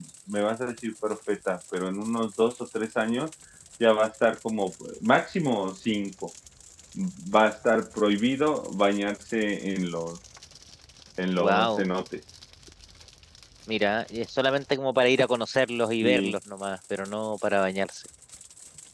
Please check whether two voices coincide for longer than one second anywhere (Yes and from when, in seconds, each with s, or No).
No